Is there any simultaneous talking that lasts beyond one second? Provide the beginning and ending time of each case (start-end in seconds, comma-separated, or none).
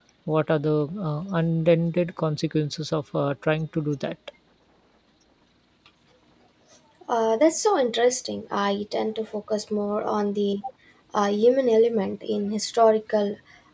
none